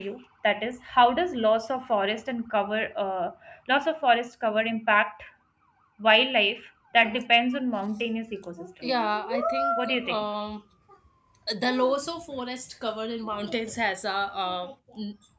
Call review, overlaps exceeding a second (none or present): none